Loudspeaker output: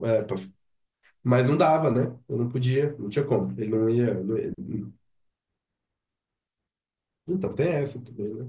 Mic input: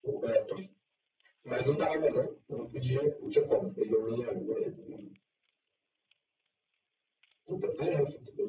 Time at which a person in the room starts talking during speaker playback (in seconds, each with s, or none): none